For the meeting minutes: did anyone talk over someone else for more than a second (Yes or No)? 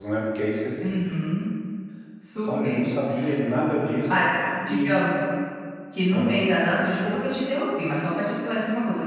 No